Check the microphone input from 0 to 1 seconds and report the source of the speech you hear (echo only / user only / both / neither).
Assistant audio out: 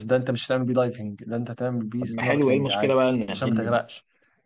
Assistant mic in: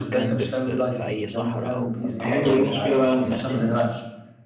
both